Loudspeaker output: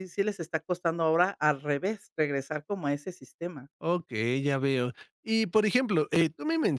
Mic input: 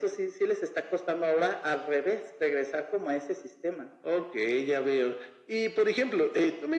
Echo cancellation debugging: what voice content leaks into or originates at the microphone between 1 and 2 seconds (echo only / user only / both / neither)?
echo only